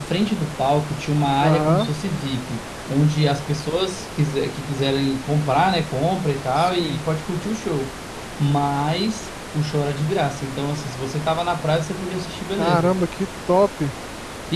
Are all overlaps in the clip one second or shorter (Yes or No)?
Yes